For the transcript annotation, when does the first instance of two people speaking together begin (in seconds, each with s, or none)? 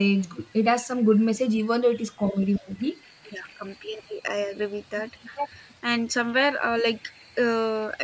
none